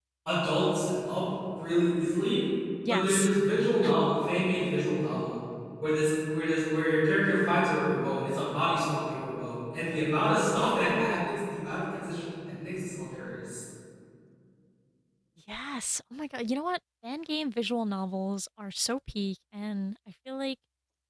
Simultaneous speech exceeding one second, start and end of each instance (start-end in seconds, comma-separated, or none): none